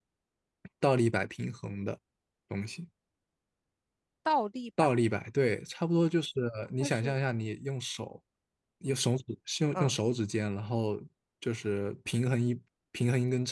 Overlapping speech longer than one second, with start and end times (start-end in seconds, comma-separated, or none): none